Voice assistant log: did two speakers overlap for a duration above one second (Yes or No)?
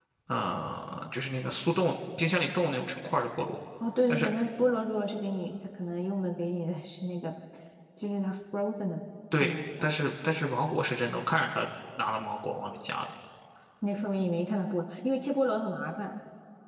No